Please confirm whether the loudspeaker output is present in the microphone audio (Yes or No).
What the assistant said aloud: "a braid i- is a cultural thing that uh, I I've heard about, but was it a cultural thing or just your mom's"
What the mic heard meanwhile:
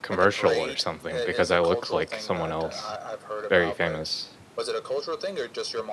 Yes